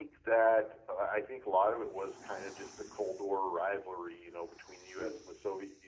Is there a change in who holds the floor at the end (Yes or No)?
No